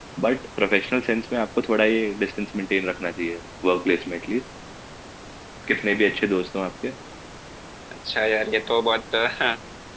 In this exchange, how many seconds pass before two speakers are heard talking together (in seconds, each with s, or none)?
none